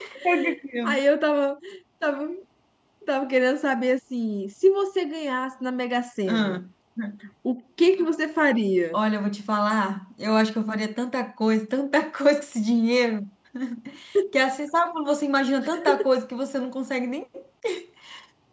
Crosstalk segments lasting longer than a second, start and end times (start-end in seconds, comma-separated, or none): none